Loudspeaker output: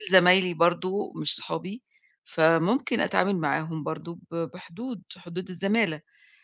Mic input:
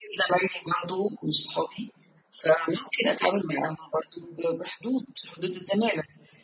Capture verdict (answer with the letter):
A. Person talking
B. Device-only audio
B